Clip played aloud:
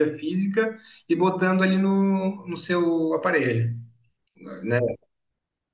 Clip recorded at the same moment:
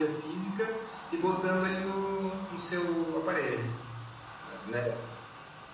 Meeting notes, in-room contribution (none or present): none